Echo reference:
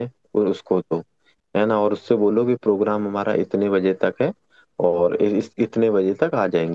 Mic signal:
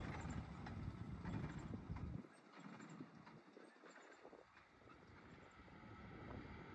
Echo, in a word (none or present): none